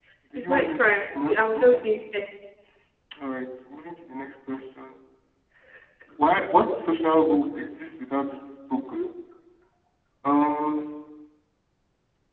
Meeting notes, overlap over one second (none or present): present